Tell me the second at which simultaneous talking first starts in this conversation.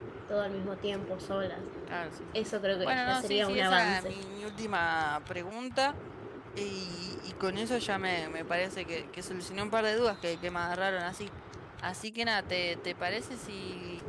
2.8 s

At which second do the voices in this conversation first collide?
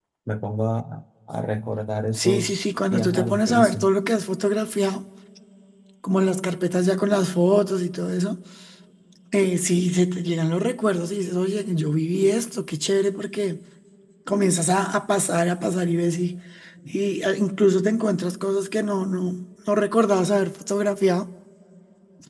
2.2 s

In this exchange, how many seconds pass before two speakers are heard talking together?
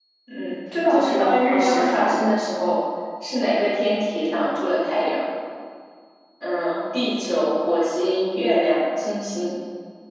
0.9 s

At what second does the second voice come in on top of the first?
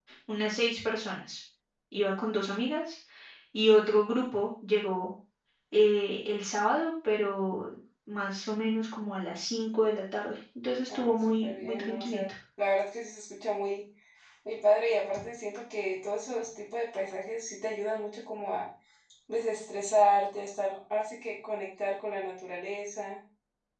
10.9 s

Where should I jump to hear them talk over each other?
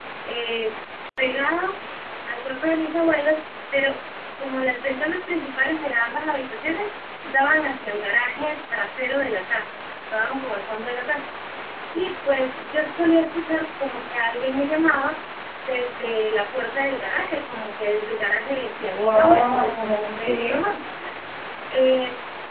18.8 s

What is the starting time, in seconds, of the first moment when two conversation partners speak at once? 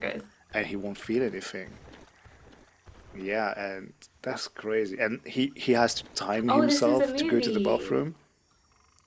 6.3 s

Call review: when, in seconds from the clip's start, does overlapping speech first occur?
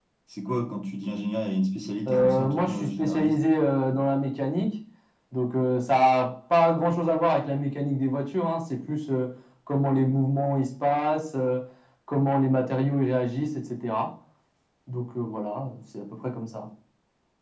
2.0 s

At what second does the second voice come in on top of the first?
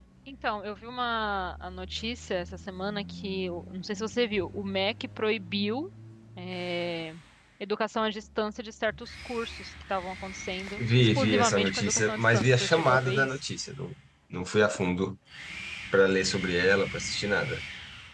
10.8 s

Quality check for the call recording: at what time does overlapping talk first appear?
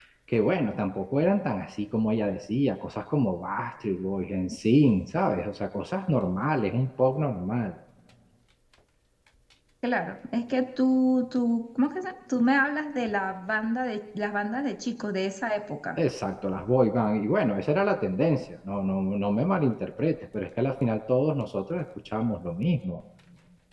none

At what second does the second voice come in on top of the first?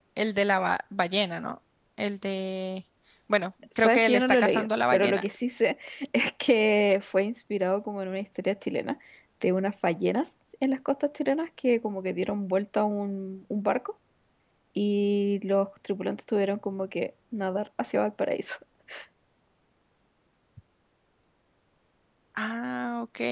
3.8 s

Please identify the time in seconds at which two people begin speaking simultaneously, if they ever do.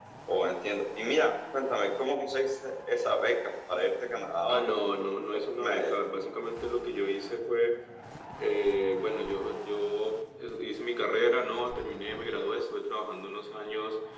4.5 s

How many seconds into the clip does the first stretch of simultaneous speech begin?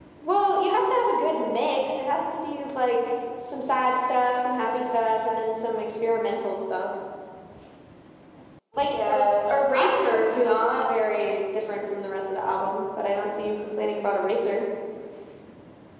8.9 s

